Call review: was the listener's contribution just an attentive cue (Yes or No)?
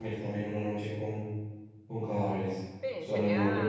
No